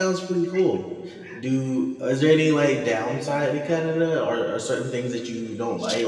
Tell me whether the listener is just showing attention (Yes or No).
No